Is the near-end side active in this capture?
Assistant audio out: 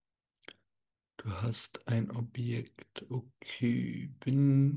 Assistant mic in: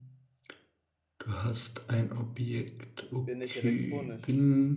Yes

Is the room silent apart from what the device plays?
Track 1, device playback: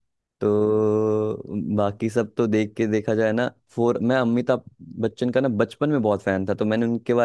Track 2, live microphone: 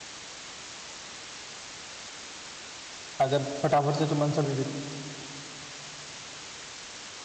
No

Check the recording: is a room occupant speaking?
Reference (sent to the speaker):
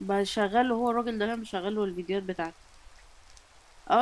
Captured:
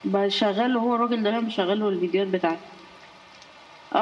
No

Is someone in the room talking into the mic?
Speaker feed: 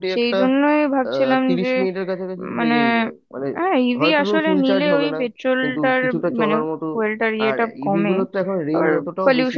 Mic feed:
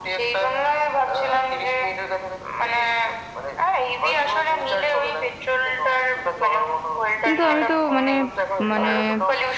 Yes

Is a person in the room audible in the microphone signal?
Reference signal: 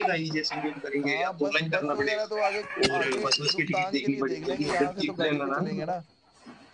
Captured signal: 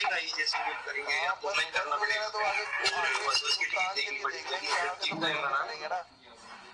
Yes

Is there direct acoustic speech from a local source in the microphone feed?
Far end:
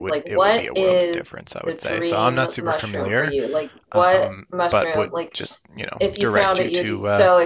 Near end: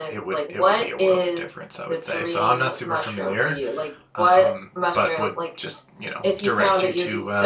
No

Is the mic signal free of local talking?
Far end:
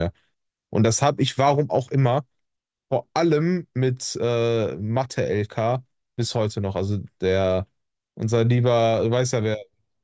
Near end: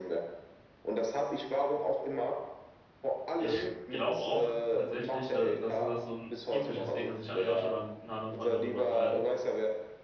No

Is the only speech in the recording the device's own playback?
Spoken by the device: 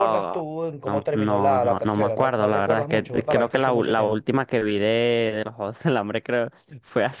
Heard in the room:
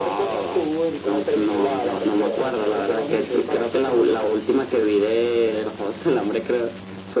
Yes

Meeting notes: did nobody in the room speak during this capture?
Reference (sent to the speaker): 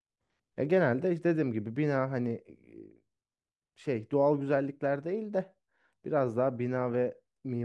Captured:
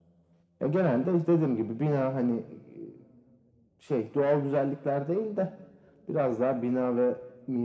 Yes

